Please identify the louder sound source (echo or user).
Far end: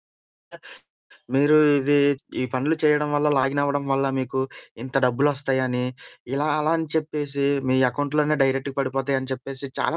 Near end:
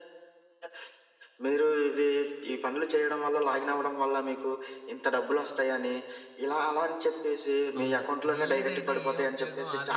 echo